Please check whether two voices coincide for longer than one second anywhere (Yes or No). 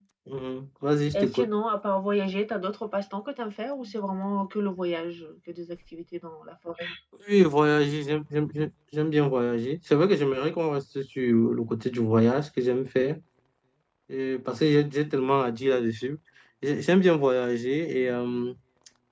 No